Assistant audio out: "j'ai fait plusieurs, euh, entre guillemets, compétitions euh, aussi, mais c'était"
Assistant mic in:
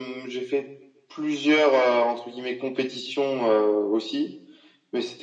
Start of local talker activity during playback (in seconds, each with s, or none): none